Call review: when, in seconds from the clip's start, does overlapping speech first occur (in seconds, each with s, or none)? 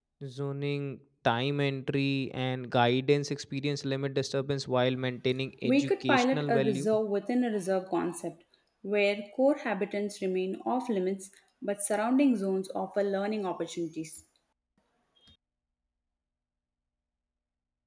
5.6 s